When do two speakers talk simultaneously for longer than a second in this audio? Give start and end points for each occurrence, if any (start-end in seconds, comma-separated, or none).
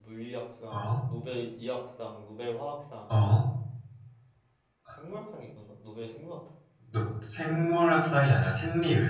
none